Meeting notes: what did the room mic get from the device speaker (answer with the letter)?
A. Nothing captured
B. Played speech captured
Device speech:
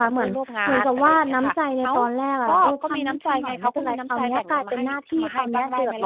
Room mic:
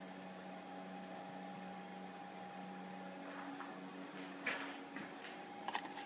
A